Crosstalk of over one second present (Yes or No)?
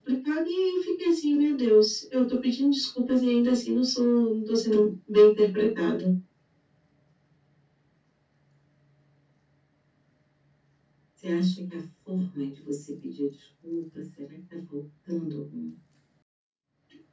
No